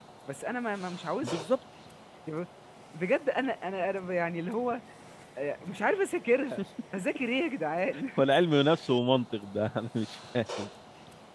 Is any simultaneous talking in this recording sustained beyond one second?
No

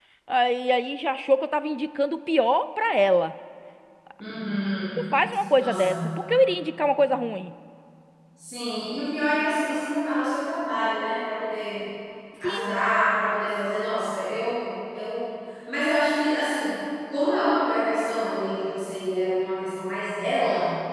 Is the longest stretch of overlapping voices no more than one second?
Yes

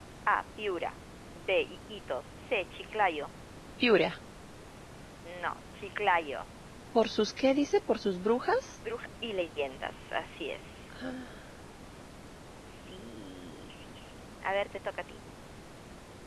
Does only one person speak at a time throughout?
Yes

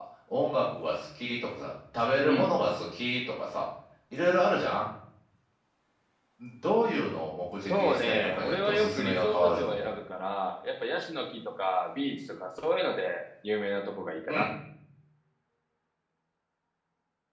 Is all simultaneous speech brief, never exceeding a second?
No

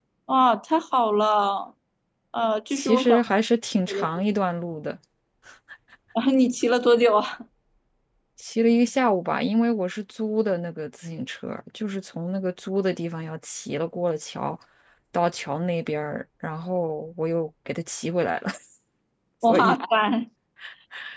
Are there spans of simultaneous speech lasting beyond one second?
No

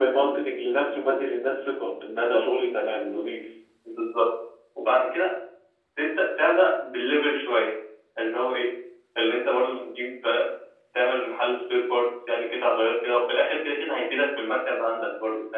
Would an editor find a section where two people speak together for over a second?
No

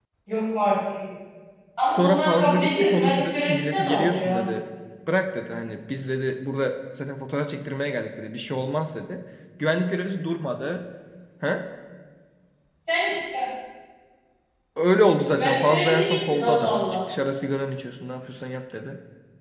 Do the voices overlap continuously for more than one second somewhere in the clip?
Yes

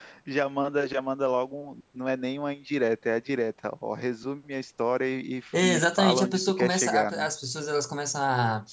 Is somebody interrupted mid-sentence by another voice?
Yes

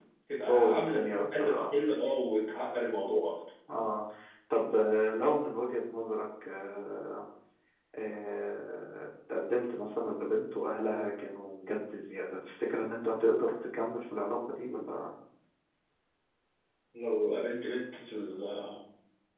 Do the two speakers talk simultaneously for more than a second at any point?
Yes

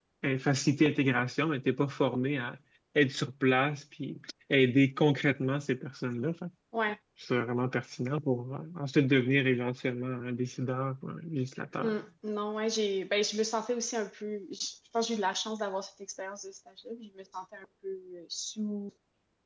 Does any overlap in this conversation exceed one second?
No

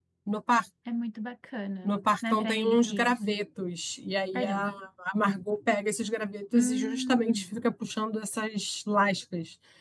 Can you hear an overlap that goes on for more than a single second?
Yes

